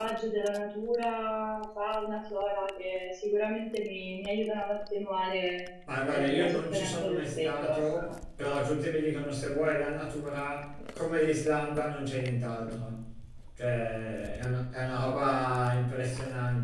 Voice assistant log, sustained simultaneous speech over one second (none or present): present